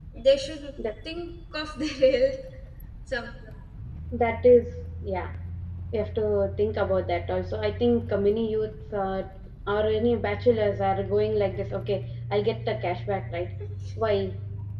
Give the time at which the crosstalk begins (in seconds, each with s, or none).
none